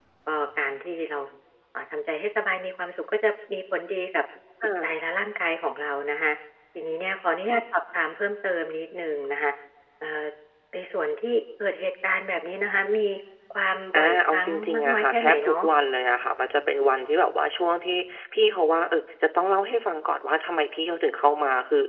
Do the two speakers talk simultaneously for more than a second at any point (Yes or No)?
Yes